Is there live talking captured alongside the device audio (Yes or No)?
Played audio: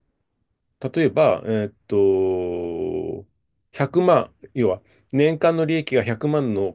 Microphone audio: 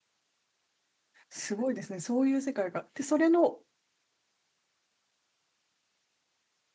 Yes